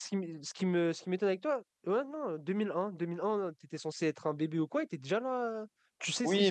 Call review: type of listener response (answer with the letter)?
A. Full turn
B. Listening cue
A